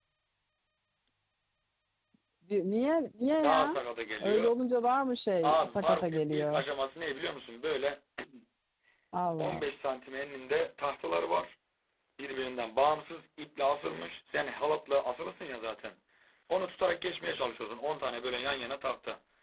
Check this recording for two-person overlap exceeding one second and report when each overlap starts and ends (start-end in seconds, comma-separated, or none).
5.4-6.6